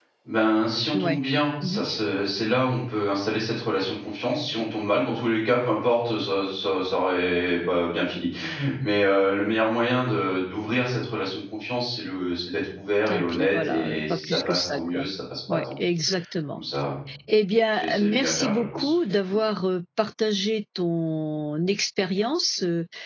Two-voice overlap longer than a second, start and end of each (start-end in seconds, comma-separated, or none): 13.1-15.0, 17.7-18.9